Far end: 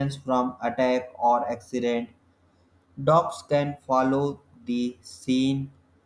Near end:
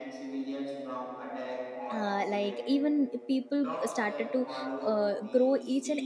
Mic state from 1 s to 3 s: both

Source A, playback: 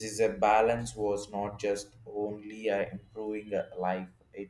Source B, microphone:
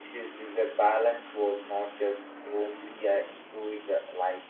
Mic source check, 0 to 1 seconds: echo only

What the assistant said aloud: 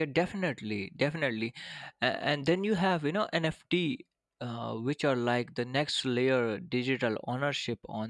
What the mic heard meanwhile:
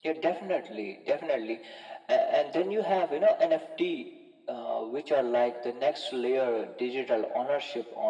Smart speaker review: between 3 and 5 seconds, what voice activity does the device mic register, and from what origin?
echo only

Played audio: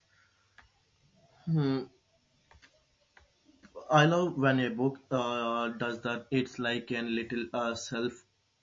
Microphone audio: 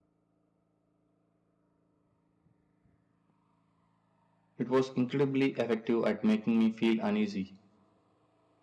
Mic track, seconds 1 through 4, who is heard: neither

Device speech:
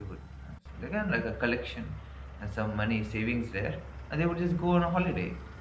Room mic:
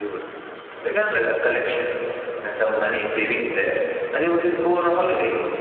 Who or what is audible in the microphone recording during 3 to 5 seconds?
echo only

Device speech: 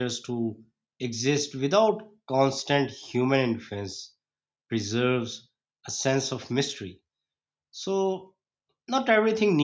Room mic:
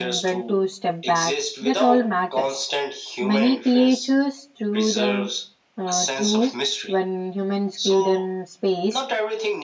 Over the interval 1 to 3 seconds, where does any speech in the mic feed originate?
both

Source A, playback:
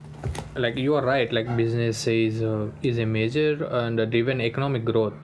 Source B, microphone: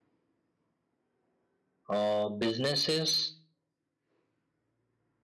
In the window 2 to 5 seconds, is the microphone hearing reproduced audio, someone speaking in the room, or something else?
user only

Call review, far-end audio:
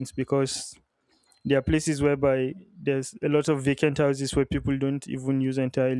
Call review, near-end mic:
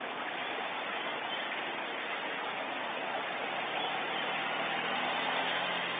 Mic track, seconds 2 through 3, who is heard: neither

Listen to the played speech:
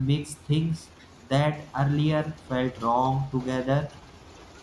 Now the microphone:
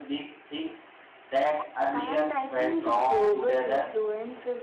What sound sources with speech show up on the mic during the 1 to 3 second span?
both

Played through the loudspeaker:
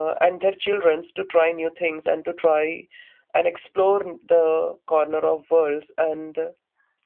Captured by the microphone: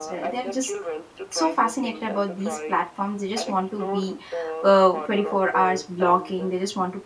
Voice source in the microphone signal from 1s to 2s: both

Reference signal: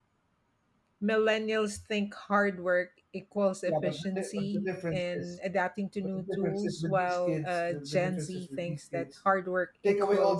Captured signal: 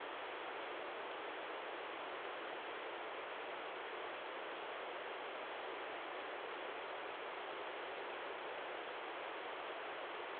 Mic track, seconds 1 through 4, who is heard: neither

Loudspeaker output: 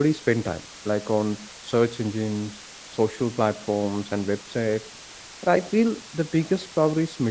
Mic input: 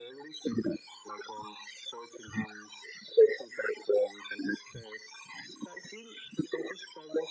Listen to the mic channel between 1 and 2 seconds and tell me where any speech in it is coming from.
echo only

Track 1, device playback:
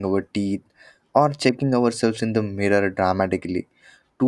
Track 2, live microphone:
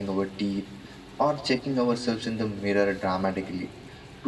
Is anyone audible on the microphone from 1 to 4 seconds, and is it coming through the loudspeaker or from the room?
echo only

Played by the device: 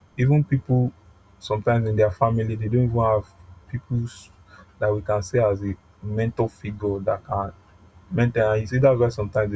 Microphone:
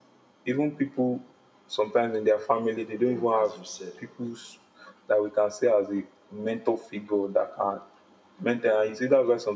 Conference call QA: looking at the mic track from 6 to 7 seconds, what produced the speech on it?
echo only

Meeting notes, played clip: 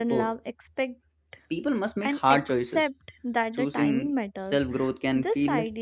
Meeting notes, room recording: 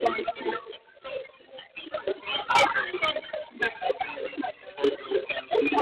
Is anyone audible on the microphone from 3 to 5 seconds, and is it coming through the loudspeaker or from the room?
echo only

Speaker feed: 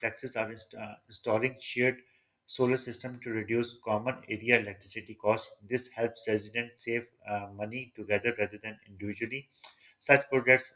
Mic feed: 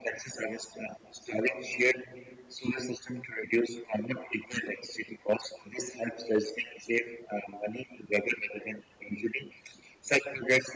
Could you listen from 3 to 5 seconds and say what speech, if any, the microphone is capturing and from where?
echo only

